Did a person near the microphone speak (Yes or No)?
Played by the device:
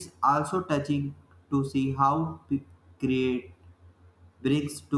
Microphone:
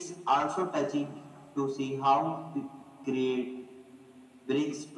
No